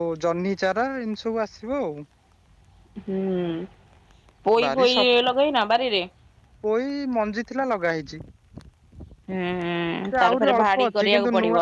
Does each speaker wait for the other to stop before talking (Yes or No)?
No